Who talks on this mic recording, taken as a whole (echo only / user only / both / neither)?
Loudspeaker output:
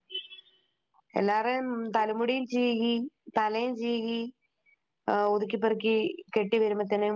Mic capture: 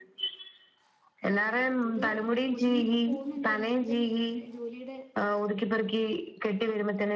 both